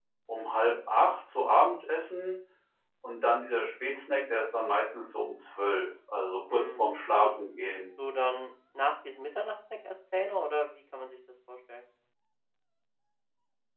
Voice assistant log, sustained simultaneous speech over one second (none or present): none